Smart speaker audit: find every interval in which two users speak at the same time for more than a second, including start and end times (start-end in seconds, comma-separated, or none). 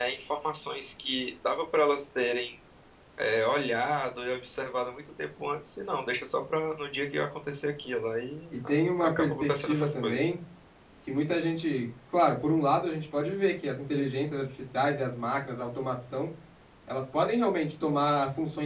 8.5-10.3